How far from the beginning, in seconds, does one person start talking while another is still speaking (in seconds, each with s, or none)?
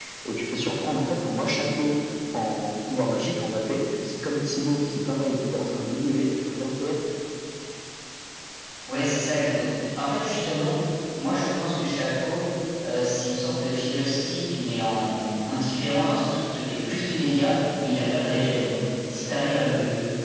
none